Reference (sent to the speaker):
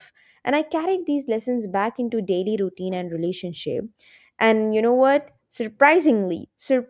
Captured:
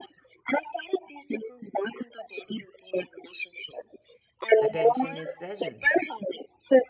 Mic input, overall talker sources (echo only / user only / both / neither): both